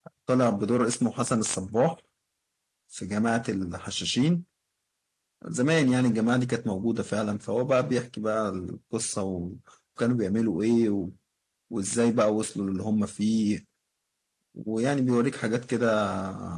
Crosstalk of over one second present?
No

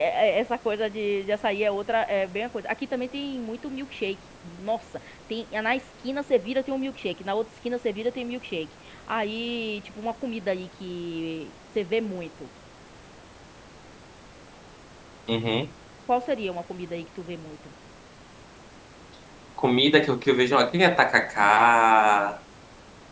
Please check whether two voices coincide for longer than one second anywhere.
No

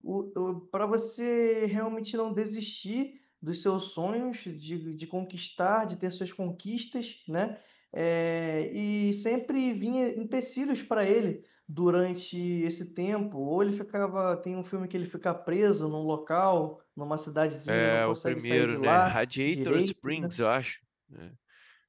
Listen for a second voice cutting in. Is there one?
Yes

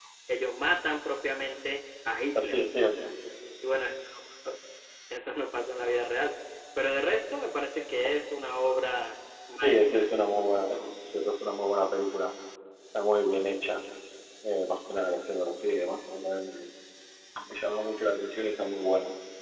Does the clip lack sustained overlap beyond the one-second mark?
Yes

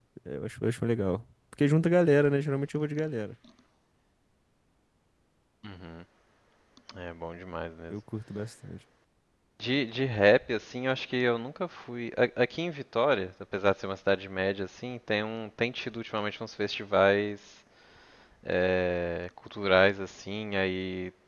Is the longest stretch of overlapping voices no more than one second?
Yes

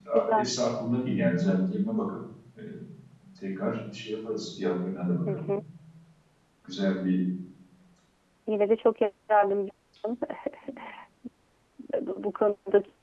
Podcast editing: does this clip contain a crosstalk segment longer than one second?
No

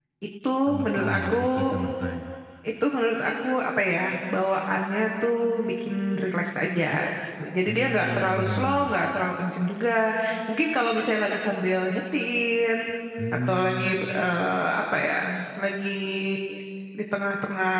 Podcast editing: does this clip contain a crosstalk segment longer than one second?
Yes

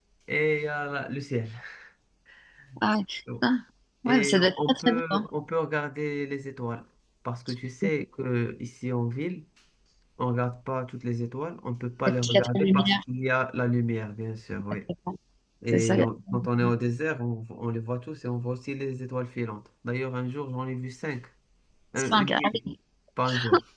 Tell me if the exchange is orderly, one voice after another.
No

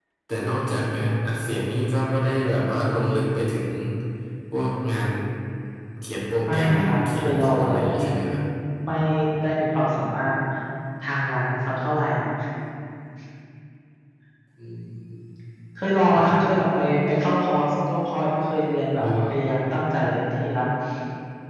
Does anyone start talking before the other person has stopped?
Yes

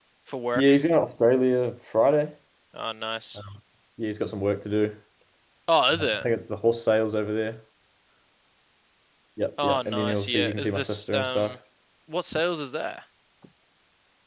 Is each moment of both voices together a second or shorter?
No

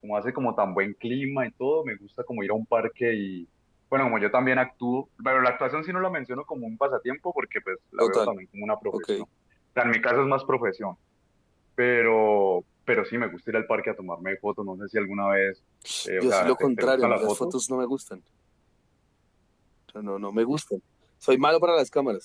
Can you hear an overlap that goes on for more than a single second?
Yes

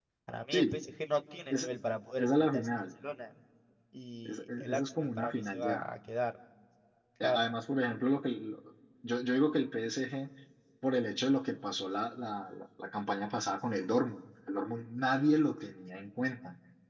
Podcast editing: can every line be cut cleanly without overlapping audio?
No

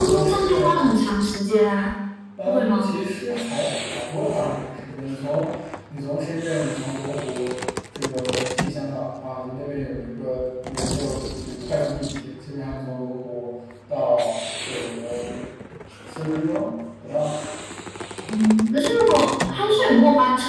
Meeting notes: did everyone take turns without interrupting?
No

